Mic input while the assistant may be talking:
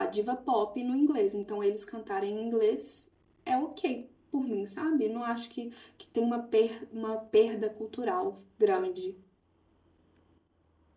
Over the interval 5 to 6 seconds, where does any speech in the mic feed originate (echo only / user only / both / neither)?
user only